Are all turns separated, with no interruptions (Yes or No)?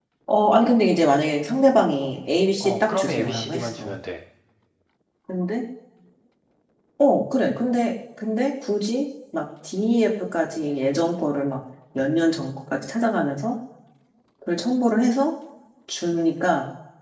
No